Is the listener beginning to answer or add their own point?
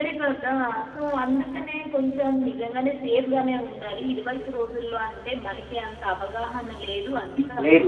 No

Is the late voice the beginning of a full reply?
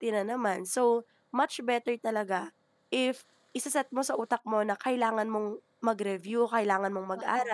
No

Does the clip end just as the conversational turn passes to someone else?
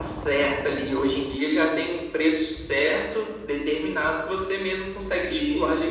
Yes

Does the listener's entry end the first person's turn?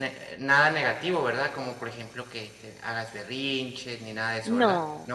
Yes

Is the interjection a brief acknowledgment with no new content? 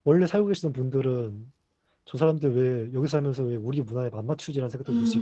No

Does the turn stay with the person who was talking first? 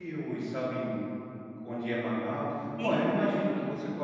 Yes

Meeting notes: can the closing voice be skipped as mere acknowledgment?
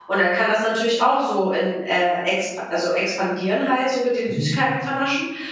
Yes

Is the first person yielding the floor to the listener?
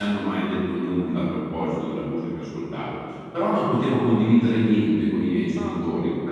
No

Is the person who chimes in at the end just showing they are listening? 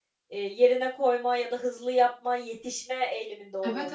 No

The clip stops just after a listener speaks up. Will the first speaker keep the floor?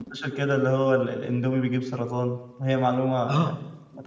No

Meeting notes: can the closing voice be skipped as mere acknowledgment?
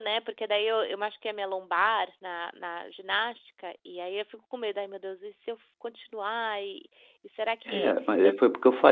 No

